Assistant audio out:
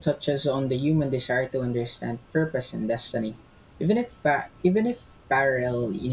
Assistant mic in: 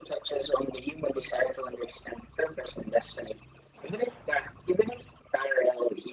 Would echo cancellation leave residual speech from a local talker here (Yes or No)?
No